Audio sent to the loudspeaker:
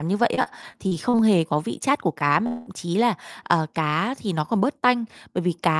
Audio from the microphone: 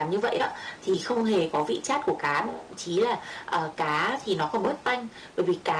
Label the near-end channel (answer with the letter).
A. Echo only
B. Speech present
A